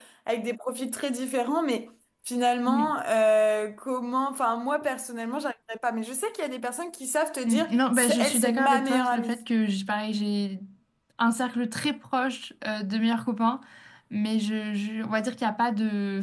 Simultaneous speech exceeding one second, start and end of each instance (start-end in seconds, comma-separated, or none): 7.5-9.3